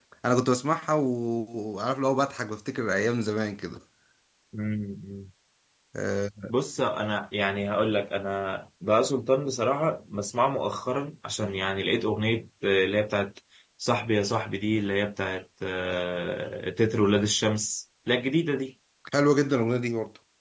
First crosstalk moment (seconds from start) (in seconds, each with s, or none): none